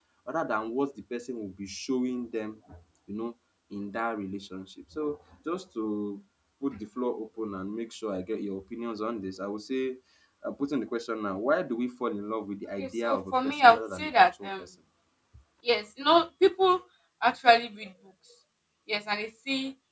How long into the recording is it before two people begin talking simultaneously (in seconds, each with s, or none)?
12.8 s